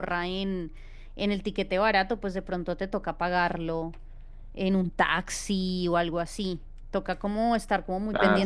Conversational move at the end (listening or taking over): listening